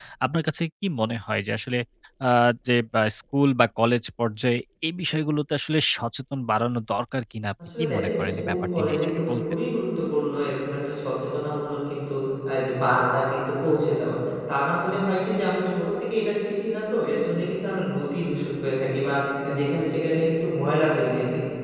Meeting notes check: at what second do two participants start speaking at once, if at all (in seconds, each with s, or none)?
7.7 s